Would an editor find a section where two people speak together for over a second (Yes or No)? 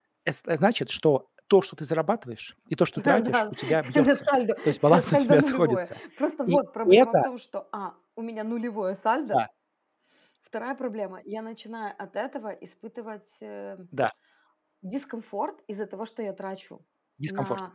Yes